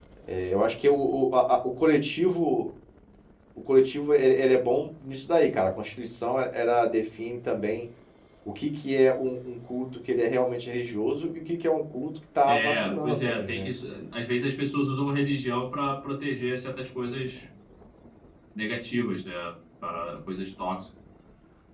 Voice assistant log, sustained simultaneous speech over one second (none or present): present